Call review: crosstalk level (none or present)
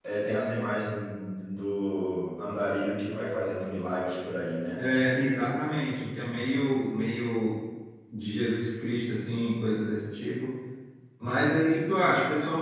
none